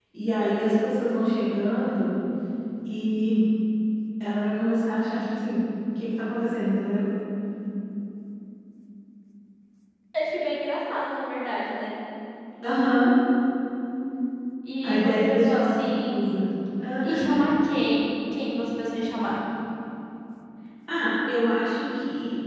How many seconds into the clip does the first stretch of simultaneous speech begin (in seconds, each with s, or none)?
14.8 s